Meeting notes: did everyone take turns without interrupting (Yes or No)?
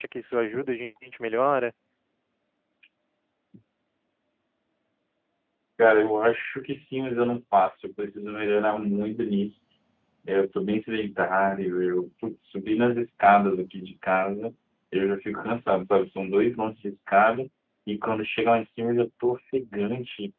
Yes